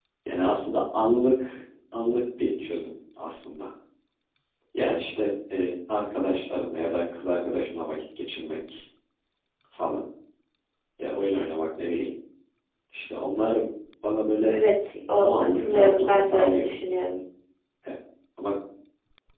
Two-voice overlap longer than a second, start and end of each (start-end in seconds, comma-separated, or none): 15.2-16.7